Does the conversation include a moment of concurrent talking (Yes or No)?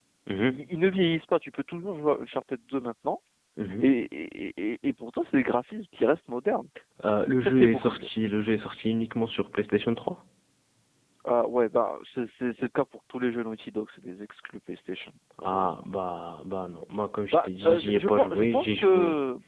Yes